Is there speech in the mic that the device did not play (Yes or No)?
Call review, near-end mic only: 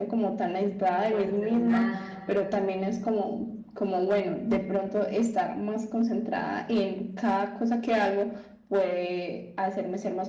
Yes